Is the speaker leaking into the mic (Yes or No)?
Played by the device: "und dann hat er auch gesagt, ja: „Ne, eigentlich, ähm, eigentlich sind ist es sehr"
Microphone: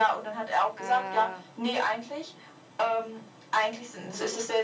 Yes